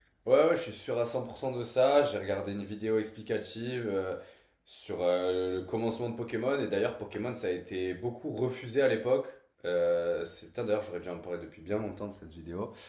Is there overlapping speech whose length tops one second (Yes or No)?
No